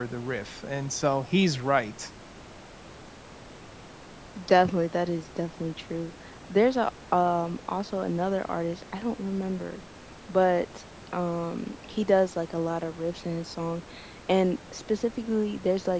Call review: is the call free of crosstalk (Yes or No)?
Yes